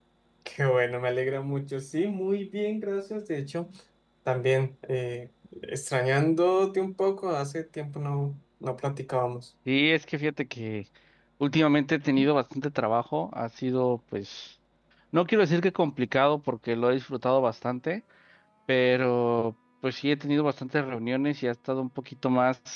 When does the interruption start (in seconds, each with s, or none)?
none